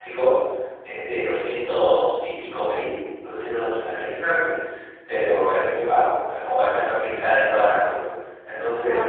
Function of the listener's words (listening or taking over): listening